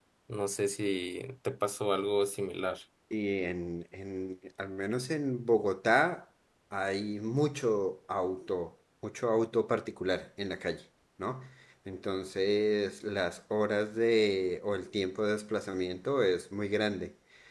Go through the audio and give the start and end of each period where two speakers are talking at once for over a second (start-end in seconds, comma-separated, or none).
none